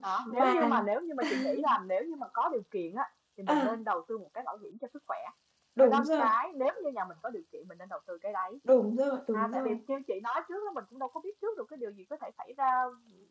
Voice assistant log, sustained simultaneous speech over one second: none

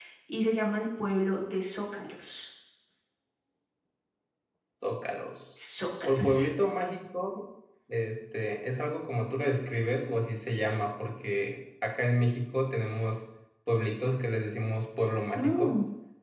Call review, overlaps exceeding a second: none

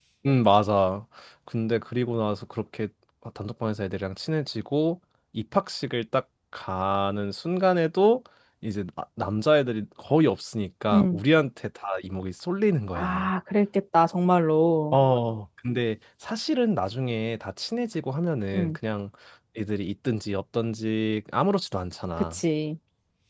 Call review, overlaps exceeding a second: none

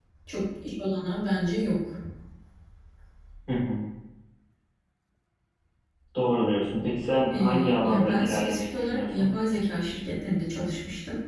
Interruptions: present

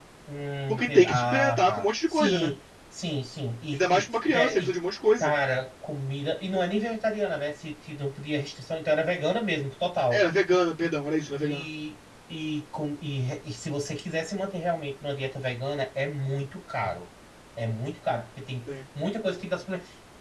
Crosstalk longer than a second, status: present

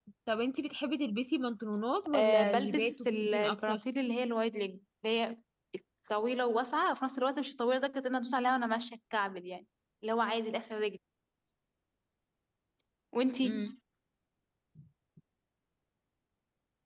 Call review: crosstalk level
present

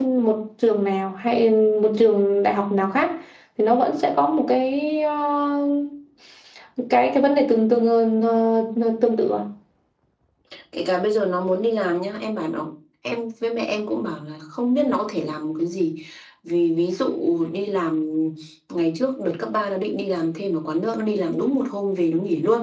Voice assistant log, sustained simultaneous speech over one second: none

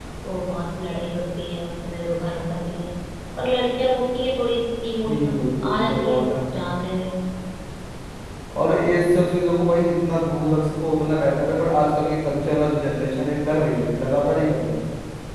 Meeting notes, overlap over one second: present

